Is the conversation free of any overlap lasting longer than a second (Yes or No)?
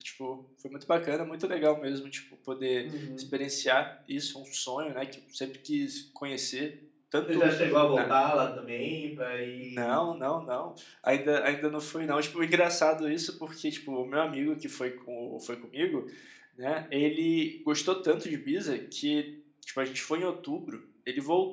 Yes